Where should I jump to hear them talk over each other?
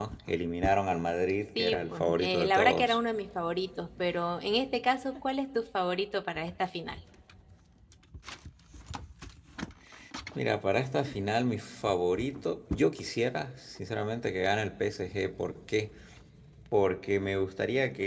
1.6 s

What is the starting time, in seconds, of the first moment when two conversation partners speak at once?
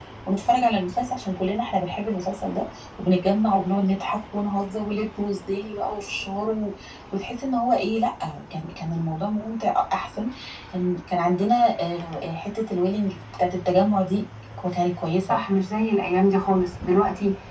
none

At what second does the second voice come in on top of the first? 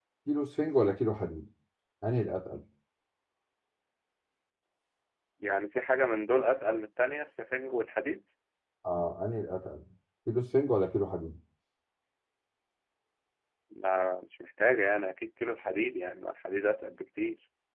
none

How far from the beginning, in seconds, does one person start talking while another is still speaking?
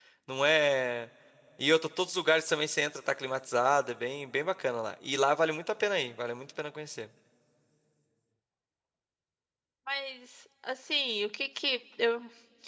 none

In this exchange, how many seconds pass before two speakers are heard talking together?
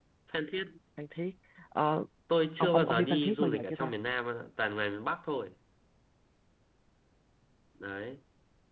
2.6 s

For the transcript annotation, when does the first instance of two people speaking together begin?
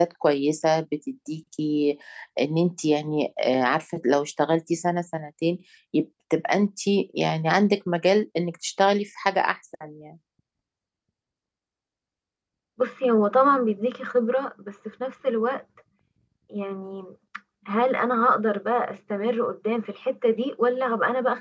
none

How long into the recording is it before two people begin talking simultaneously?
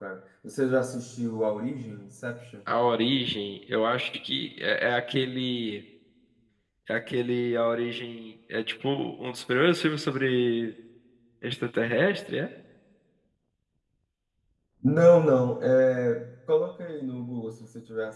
none

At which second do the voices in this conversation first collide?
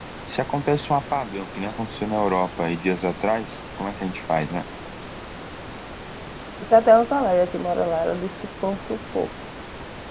none

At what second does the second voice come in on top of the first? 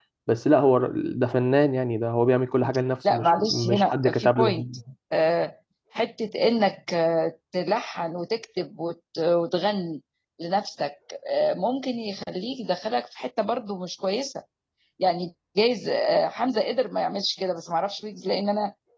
3.0 s

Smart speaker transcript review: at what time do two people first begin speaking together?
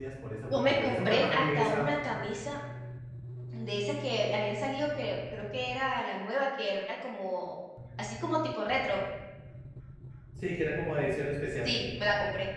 0.5 s

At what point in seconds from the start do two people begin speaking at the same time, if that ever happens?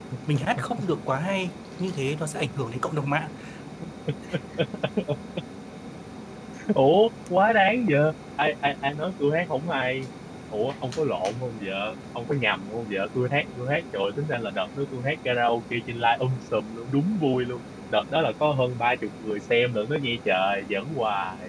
none

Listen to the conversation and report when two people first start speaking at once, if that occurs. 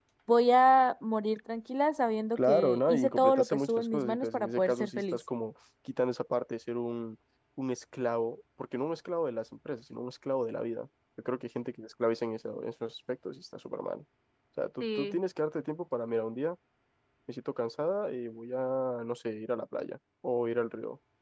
2.4 s

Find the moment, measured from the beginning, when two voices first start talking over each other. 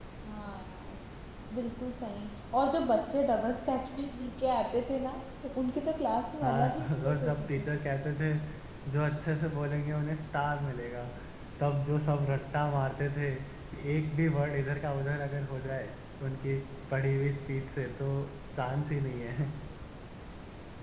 6.4 s

